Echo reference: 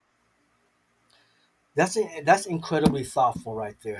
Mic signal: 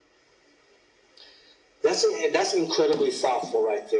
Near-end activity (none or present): none